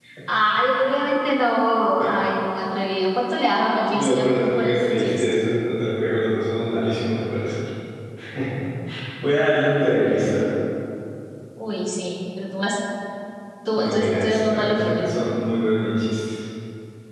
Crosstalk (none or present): present